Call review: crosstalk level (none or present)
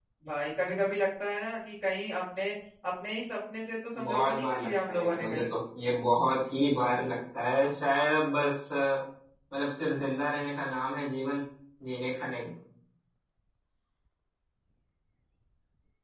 present